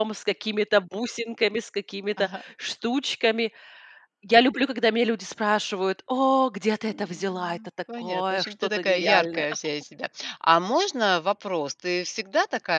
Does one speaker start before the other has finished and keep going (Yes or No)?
Yes